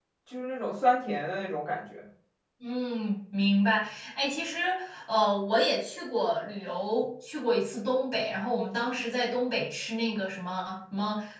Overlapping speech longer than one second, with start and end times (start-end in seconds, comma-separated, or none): none